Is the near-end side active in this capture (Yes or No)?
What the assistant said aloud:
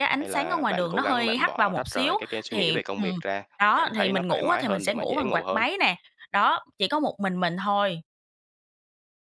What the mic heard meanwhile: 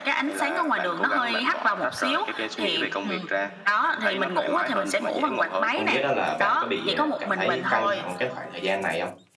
Yes